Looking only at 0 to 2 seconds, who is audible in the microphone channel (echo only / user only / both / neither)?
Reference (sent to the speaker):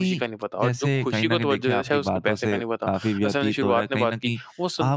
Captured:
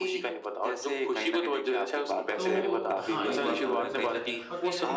echo only